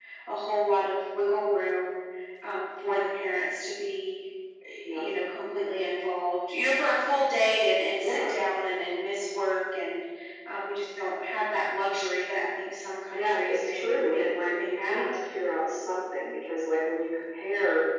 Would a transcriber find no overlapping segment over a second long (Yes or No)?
No